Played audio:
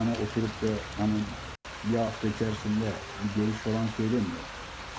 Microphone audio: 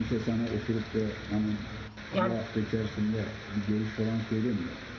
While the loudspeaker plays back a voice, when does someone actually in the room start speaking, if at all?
2.1 s

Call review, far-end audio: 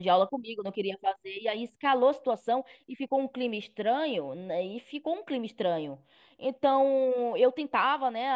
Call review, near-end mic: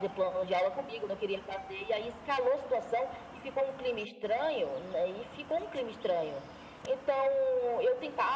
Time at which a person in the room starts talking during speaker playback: none

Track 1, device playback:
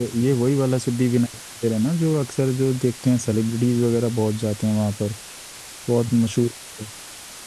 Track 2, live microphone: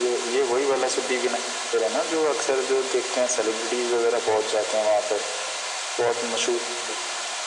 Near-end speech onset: none

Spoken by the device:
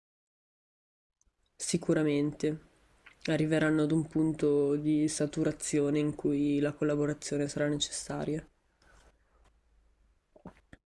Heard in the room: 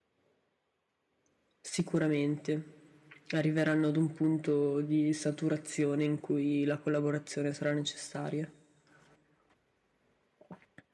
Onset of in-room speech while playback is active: none

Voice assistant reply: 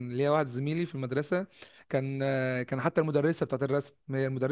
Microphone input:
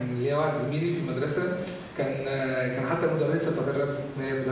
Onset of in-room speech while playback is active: none

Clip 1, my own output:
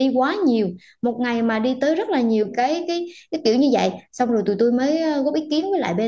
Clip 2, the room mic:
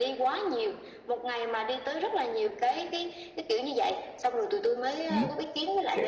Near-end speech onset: 5.1 s

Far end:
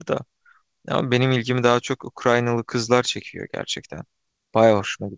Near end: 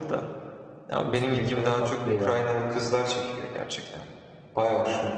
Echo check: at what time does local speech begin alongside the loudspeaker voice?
1.0 s

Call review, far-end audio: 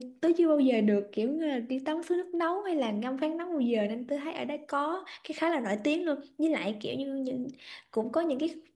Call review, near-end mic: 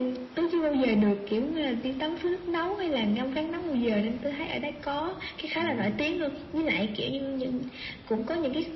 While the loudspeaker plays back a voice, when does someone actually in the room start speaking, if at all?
5.5 s

